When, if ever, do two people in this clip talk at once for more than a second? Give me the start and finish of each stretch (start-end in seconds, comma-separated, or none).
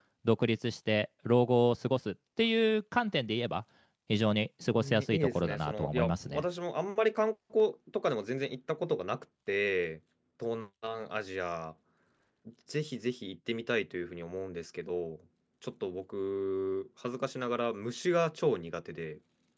4.8-6.4